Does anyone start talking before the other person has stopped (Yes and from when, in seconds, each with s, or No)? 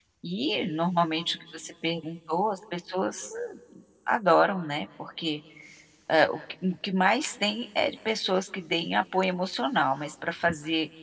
No